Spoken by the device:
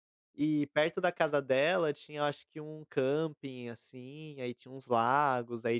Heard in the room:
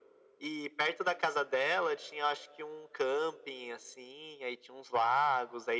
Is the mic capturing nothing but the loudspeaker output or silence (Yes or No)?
Yes